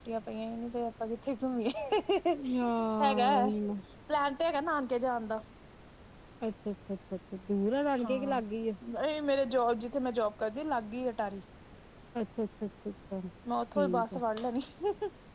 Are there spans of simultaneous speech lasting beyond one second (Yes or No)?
No